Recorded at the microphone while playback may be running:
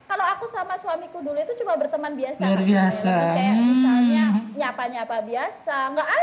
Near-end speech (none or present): present